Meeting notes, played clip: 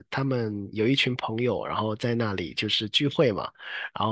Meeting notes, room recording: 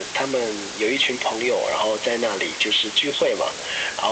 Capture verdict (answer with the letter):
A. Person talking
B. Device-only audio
B